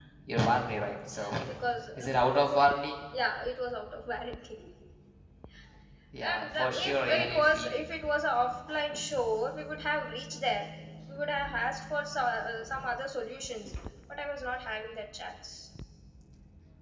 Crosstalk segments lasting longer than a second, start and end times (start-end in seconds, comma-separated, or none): 6.2-7.7